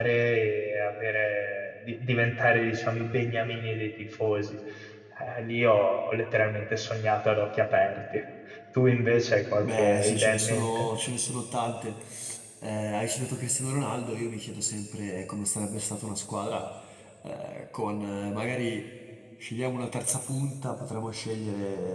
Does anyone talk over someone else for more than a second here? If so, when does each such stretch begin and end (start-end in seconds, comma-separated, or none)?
9.6-10.9